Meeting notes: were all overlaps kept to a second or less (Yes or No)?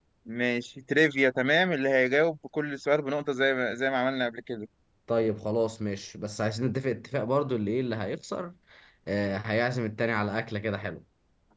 Yes